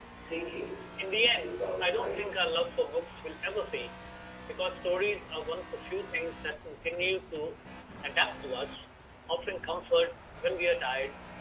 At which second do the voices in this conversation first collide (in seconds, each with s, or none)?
1.1 s